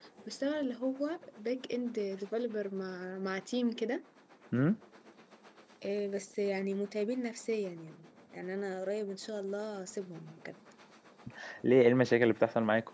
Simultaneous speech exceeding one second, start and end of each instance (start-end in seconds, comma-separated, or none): none